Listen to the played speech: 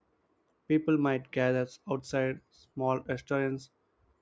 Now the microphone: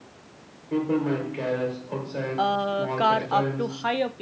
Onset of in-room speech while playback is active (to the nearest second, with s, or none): 2 s